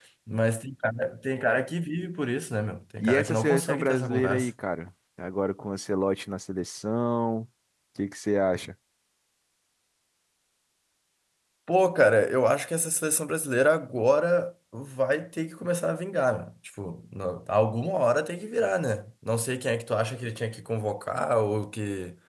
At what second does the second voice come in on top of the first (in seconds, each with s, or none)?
3.0 s